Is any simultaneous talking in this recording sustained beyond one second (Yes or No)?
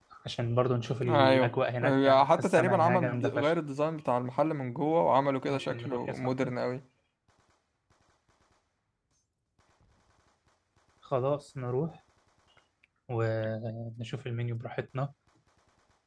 Yes